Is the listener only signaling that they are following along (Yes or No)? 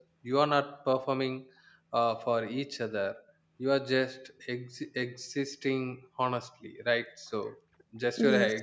Yes